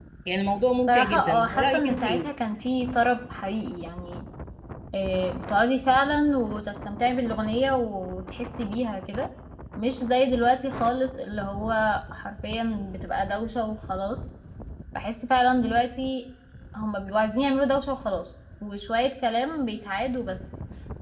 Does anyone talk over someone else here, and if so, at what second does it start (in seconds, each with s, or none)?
0.9 s